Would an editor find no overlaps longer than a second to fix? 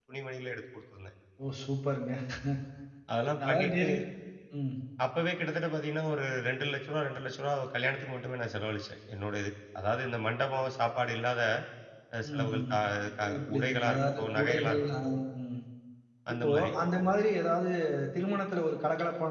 No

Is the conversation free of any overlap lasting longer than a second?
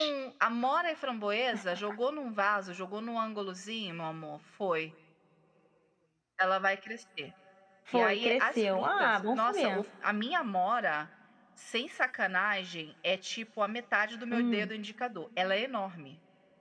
No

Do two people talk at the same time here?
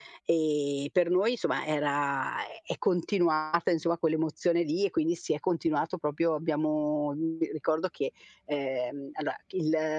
No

